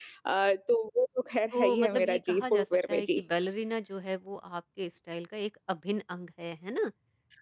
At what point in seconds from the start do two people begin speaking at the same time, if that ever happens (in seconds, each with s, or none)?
1.5 s